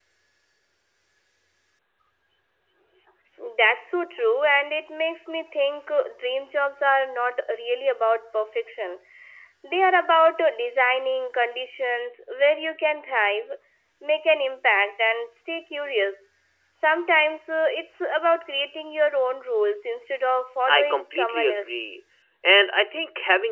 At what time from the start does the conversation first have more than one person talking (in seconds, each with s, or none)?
20.7 s